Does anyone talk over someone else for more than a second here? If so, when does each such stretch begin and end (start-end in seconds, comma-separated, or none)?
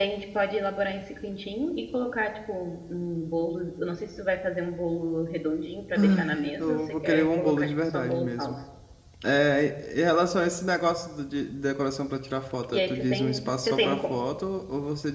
6.0-8.6, 12.7-14.0